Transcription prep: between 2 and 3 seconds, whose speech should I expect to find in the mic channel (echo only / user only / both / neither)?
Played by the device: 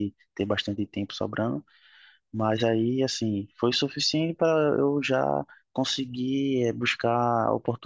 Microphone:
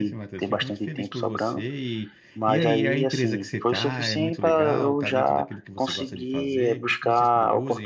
both